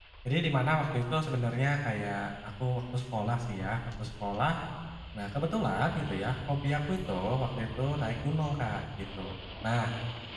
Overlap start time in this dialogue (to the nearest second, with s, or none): none